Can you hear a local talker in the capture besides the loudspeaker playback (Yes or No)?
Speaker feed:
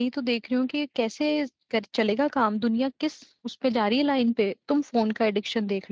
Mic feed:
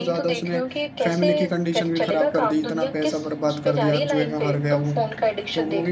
Yes